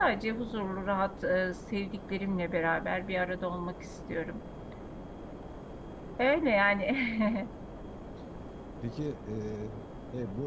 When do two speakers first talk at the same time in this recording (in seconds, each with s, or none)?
none